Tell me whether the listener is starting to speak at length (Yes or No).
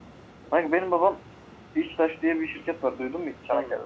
Yes